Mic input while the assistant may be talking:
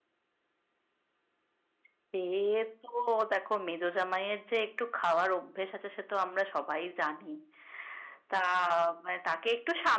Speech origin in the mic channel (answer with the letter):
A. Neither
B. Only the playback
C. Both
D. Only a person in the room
B